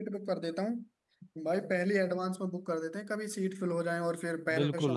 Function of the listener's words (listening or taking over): taking over